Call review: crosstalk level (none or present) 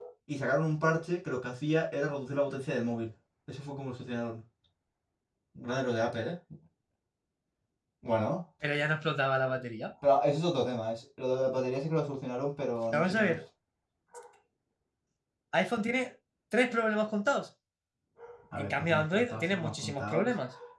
present